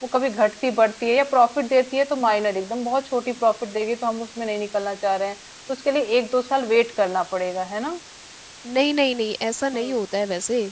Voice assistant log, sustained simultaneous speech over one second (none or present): none